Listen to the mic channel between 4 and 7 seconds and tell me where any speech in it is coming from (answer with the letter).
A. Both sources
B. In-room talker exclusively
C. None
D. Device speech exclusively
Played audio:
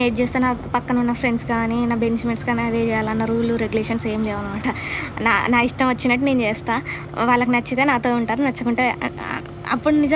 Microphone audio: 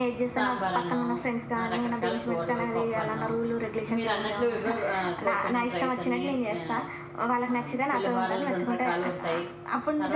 A